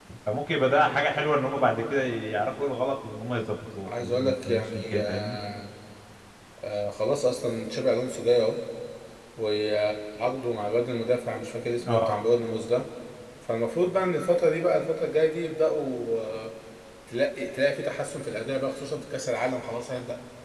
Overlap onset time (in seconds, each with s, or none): 3.9 s